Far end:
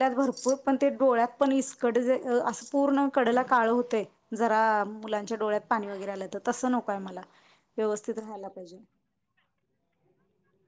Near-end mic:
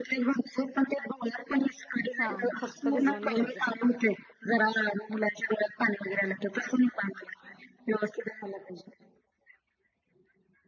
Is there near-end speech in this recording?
Yes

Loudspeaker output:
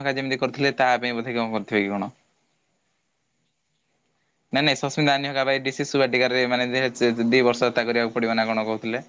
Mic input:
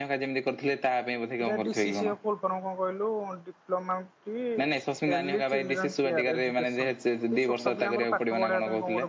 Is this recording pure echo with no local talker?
No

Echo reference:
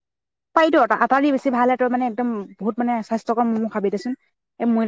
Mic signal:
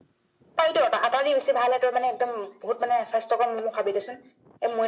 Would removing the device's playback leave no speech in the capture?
Yes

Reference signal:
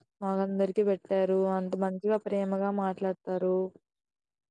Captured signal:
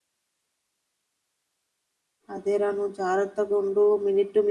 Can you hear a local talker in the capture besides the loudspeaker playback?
Yes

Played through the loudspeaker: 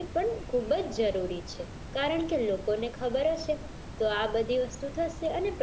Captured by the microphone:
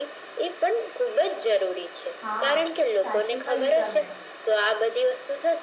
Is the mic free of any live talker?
No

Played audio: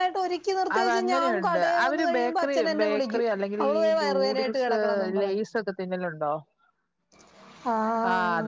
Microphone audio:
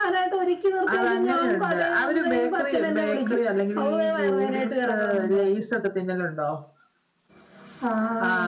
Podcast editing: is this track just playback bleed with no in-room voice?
Yes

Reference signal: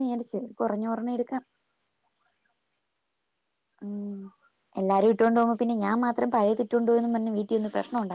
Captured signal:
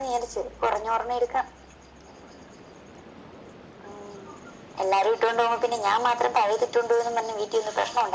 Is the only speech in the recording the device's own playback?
Yes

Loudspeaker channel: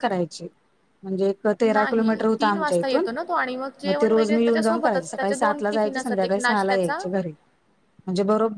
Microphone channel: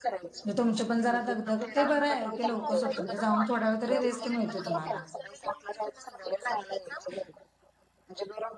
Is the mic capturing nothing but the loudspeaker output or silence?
No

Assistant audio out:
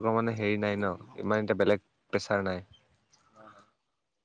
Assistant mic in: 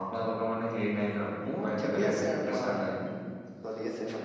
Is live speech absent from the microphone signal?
No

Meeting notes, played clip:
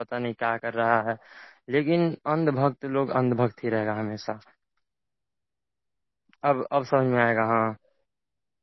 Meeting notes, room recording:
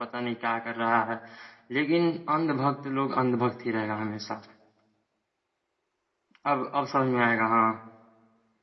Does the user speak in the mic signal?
No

